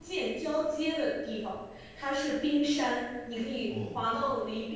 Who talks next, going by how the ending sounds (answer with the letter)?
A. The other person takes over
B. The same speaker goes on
B